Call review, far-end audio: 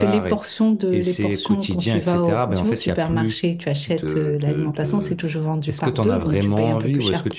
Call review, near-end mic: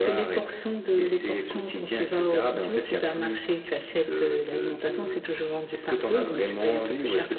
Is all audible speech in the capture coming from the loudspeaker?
Yes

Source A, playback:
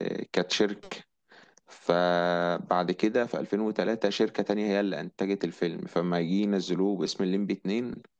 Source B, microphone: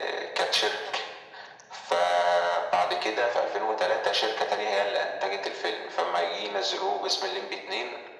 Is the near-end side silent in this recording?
Yes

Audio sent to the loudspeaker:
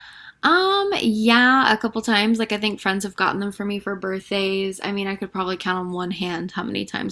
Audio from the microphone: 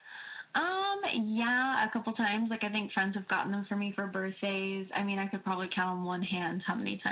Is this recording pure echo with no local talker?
Yes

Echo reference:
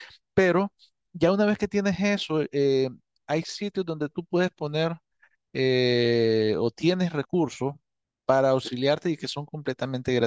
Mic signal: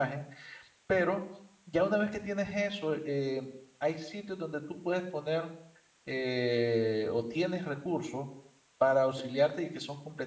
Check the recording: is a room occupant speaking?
No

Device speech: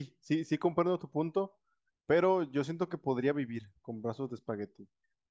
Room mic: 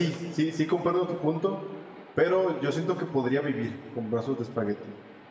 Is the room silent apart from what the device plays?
Yes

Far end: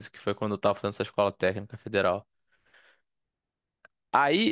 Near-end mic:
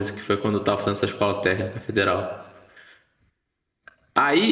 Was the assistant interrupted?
No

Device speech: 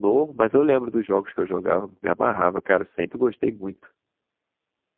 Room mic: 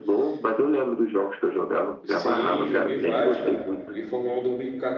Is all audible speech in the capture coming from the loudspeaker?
No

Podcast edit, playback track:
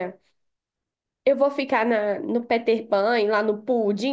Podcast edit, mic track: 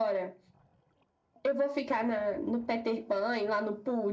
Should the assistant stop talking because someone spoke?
No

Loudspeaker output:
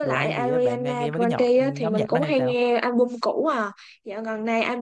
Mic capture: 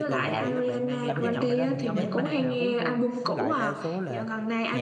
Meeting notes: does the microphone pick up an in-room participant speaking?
Yes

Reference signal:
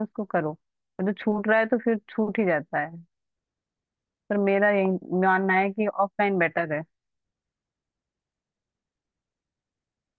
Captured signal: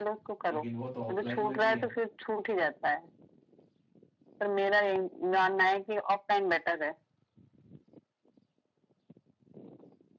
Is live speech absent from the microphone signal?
No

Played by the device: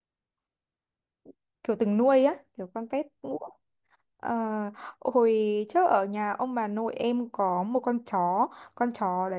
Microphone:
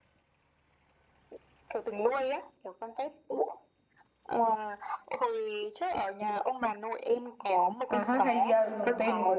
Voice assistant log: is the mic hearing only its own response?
No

